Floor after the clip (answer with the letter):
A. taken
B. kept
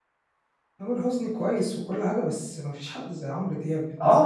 A